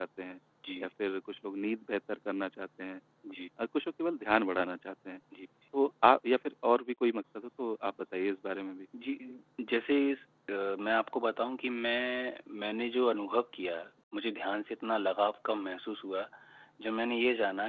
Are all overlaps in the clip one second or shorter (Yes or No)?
Yes